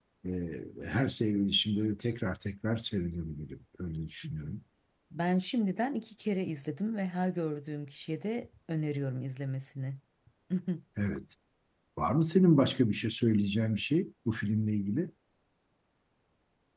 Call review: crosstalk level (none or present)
none